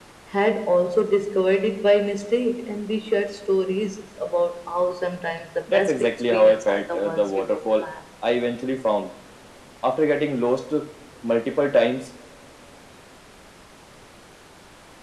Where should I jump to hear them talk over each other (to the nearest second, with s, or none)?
6 s